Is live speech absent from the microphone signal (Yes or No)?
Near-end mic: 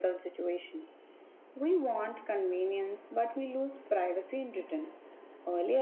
Yes